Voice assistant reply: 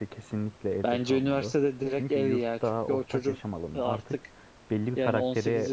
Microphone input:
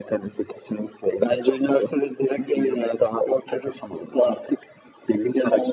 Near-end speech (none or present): none